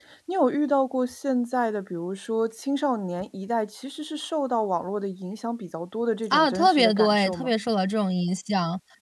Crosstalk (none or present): present